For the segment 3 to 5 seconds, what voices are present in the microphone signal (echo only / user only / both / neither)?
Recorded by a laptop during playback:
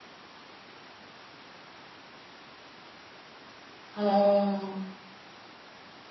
user only